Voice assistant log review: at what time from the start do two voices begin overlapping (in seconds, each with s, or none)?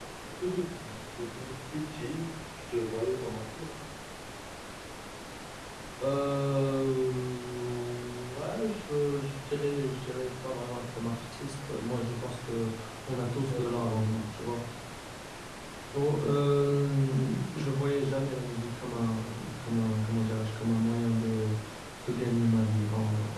13.2 s